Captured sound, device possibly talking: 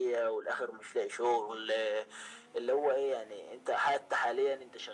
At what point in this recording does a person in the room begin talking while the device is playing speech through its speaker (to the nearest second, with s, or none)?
none